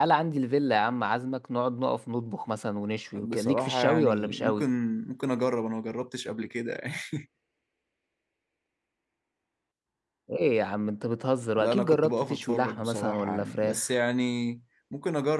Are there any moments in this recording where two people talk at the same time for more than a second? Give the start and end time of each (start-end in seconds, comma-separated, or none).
3.2-4.7, 11.6-13.9